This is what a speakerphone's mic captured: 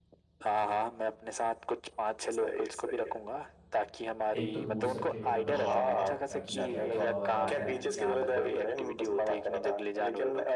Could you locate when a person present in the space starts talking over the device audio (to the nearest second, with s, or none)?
4 s